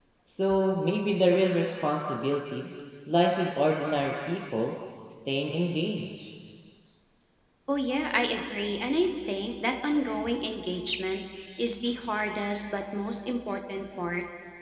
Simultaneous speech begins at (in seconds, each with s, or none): none